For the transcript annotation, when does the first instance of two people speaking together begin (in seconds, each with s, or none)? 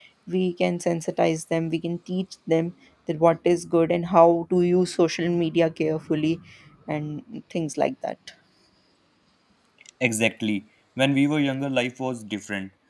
none